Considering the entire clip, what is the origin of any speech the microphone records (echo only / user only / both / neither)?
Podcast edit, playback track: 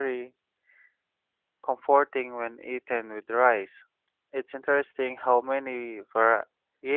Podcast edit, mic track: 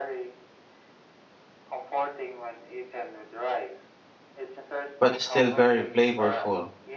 both